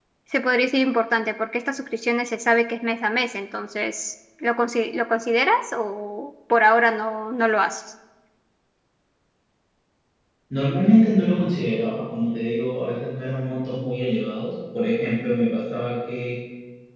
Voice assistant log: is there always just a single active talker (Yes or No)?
Yes